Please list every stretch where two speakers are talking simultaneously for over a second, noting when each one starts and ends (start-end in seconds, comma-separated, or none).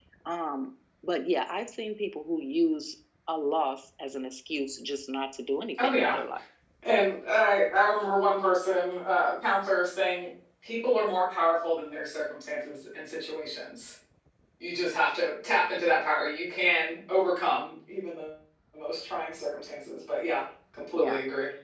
none